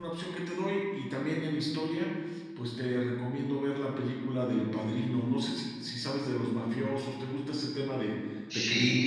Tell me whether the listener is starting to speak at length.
Yes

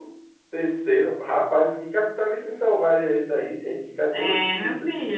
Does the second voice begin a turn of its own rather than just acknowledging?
Yes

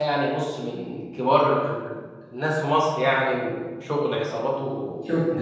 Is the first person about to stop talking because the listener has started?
Yes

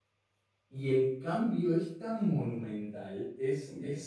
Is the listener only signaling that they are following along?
Yes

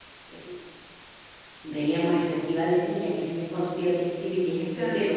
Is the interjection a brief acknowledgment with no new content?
Yes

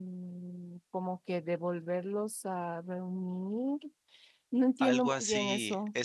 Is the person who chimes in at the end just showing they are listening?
No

